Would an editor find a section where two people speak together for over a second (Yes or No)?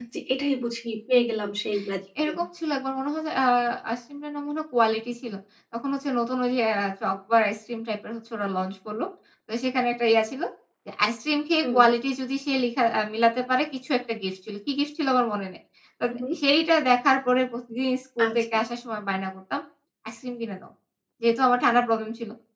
No